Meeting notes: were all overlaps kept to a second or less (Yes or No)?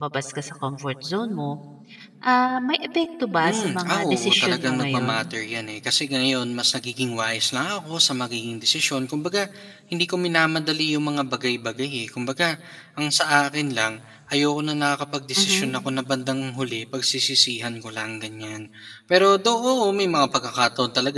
No